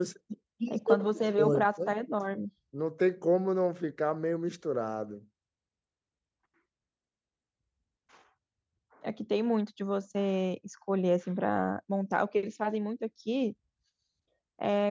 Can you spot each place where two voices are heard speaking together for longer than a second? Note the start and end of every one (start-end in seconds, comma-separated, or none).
0.7-1.9